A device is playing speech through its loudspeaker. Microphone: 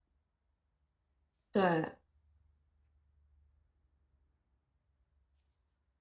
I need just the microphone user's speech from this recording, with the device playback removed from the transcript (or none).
对